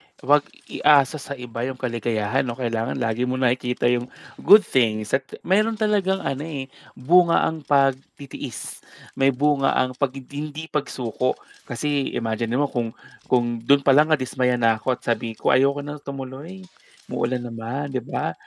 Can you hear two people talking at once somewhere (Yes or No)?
No